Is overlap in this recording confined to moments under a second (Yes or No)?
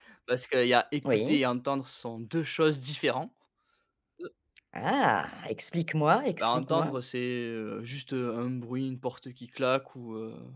Yes